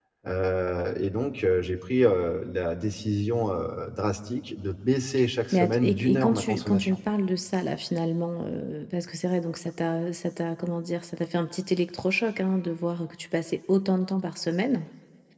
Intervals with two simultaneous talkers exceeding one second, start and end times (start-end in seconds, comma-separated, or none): 5.5-7.0